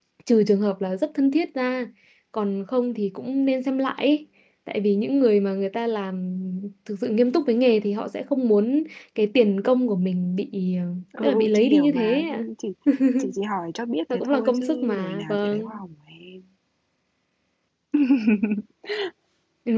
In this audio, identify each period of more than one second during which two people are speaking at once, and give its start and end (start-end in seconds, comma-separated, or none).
11.2-12.4, 14.1-15.8